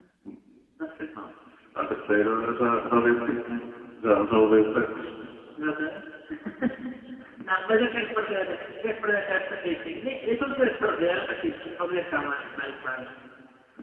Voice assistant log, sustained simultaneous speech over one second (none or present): none